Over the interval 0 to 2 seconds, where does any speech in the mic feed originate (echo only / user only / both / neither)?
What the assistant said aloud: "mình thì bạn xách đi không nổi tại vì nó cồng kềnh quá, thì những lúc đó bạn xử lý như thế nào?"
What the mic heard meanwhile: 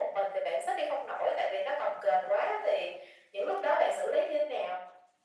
echo only